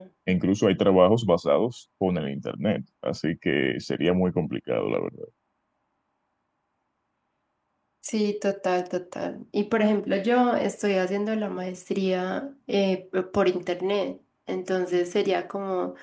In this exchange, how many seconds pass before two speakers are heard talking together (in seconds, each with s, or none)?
none